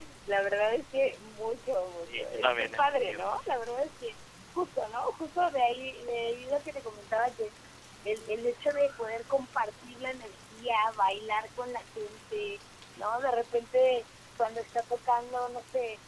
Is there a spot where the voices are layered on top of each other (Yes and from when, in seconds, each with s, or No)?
Yes, from 2.1 s